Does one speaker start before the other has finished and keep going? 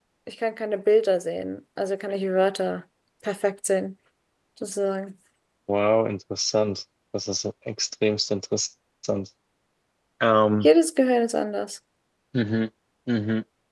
No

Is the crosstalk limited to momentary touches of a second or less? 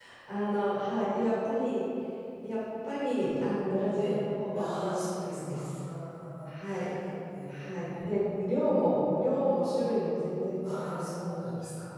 No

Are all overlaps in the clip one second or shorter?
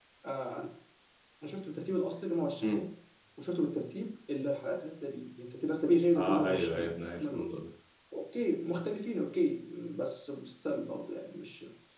No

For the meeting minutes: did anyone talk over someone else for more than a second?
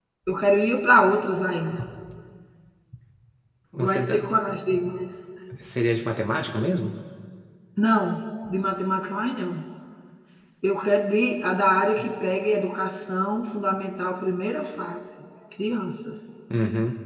No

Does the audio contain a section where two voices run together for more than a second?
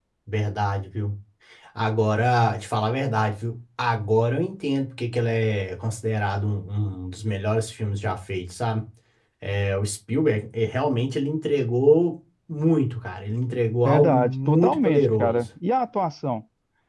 Yes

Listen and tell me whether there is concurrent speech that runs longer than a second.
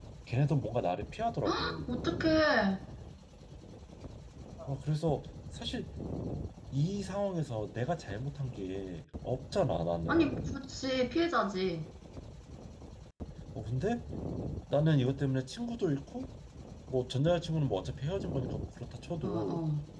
No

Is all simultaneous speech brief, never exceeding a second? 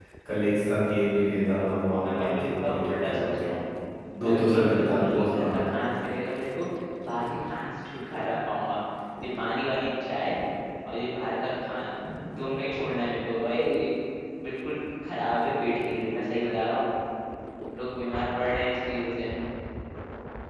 No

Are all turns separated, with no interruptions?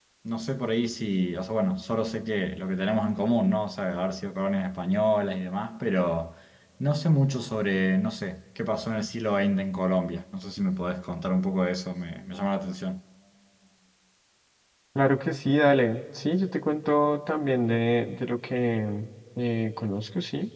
Yes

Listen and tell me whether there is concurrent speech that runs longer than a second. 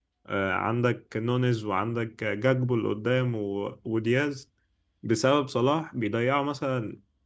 No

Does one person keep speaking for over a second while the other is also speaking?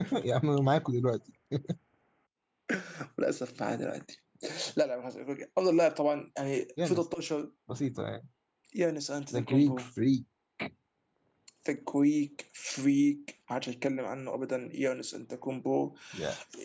No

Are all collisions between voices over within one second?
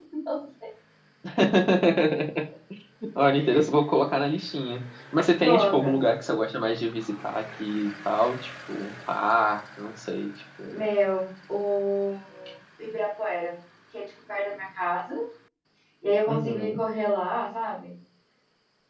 Yes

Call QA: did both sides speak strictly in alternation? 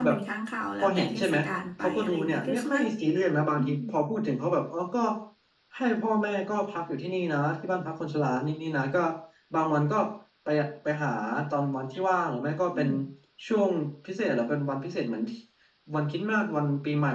No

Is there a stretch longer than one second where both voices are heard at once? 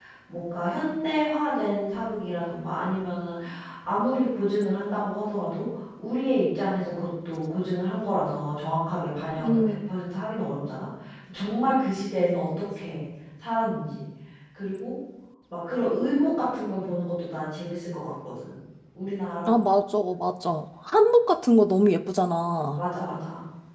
No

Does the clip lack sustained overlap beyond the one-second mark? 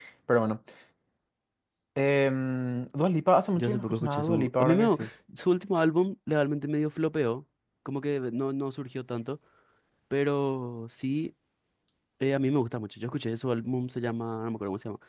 No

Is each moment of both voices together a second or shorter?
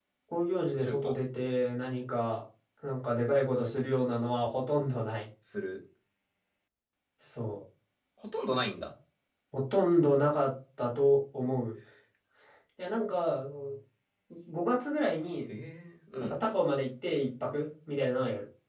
Yes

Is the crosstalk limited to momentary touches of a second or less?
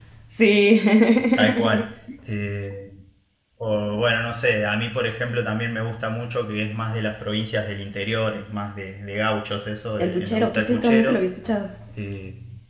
No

